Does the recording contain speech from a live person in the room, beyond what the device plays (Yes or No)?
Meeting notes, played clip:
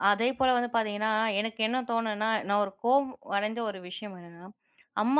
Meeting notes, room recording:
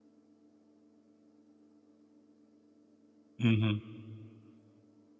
Yes